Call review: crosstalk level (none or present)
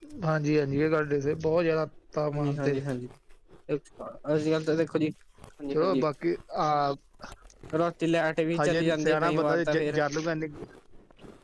present